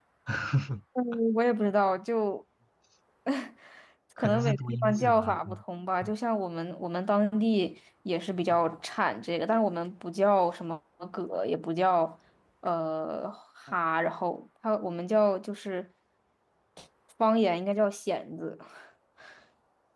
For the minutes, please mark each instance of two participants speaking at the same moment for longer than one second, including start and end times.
4.2-5.6

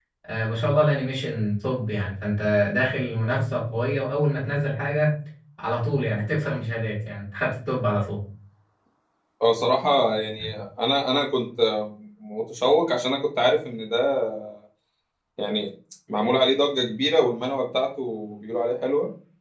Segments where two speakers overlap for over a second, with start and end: none

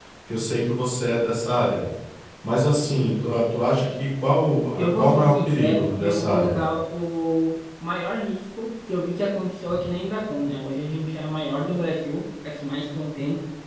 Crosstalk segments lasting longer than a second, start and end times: 4.8-6.6

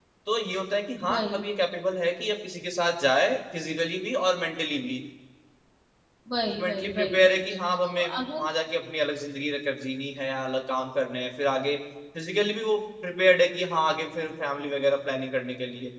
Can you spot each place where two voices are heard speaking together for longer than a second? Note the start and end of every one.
6.5-8.5

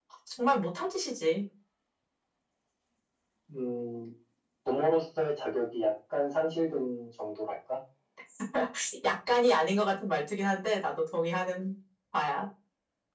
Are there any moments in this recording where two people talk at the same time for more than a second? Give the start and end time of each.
none

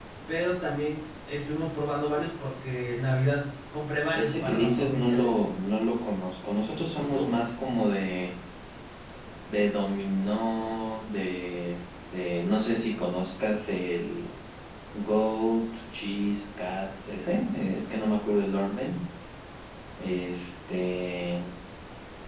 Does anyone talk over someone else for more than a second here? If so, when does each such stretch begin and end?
4.1-5.5

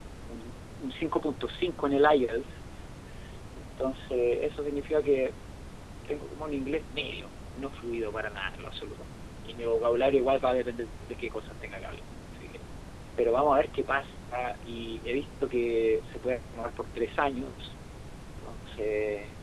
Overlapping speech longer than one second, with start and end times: none

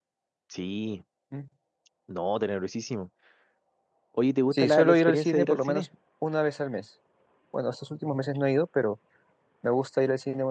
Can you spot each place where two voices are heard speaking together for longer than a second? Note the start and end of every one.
4.5-5.8

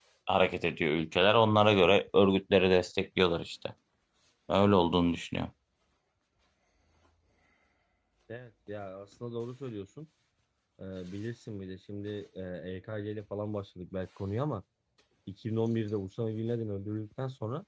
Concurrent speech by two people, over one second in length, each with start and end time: none

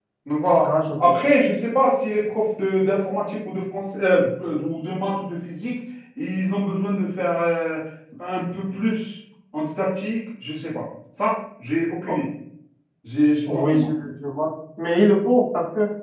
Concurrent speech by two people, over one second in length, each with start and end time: none

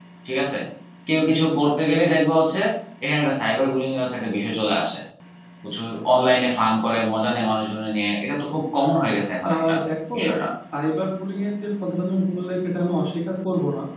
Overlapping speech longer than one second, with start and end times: none

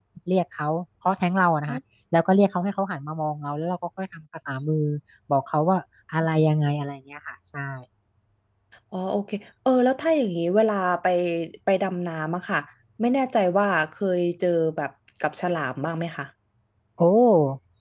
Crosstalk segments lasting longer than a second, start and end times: none

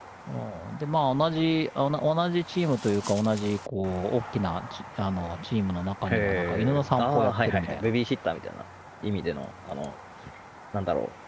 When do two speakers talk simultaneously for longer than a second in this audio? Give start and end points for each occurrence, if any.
6.1-7.9

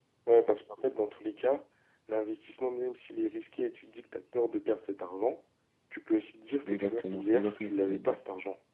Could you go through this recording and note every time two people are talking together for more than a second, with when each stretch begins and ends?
6.7-8.2

